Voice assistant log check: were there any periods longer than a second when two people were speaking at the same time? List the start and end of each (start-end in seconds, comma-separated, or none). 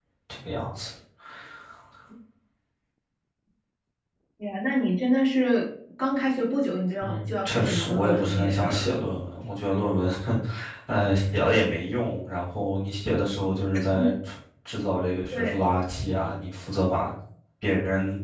7.0-8.9